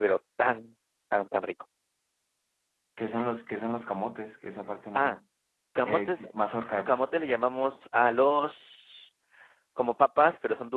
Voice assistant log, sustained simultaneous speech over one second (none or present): none